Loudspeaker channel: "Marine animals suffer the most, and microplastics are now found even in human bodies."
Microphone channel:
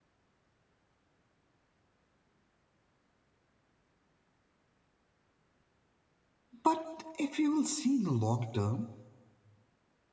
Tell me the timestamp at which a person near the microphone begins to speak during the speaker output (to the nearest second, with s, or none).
7 s